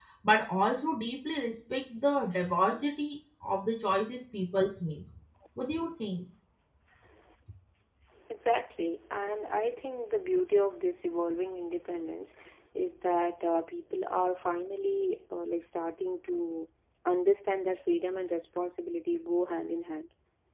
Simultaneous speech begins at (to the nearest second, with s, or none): none